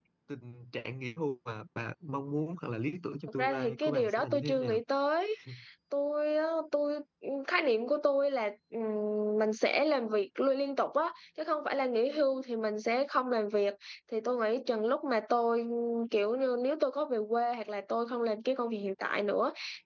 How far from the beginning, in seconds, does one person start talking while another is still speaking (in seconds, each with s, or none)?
3.3 s